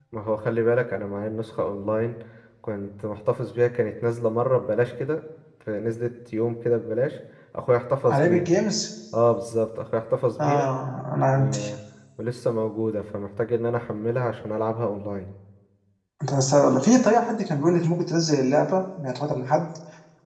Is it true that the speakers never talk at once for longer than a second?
Yes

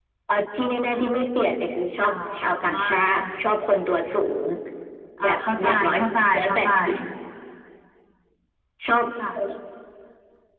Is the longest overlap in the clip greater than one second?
Yes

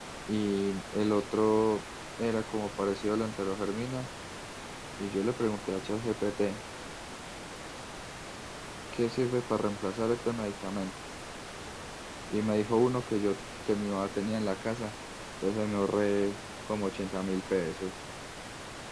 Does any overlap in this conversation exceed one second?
No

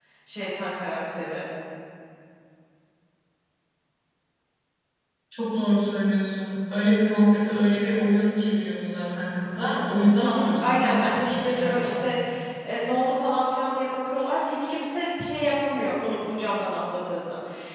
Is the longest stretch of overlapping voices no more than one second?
No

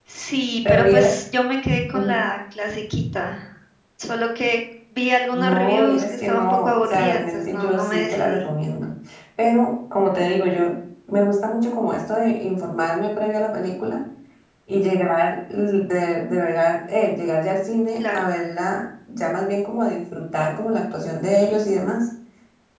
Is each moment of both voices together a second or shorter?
No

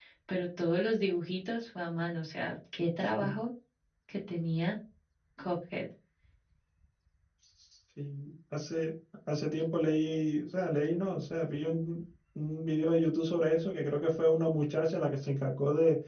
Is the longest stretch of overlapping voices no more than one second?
Yes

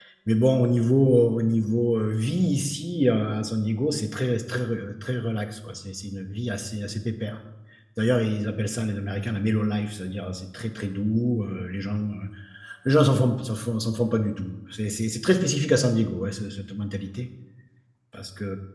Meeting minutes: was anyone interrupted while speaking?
No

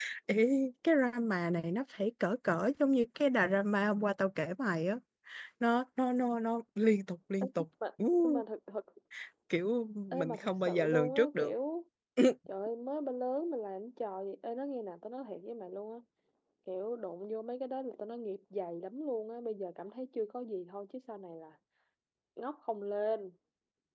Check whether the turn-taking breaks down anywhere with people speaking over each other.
Yes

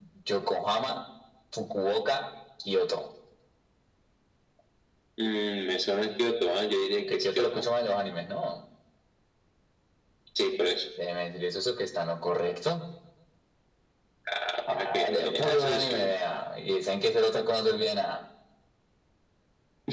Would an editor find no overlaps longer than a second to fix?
No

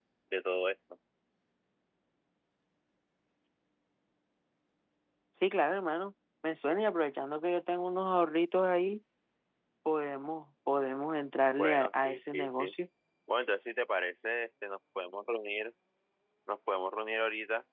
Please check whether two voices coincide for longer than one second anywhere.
Yes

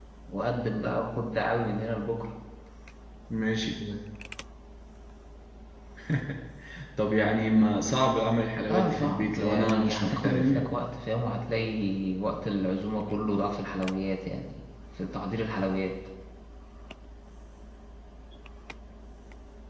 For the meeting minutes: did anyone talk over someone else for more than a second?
Yes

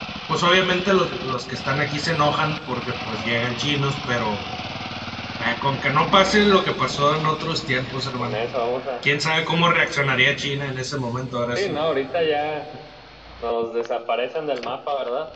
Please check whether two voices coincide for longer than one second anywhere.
No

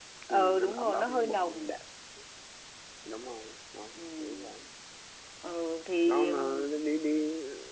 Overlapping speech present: Yes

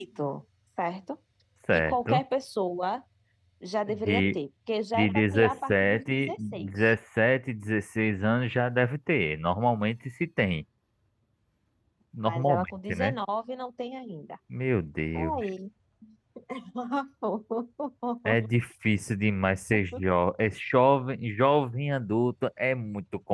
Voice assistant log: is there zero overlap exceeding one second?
No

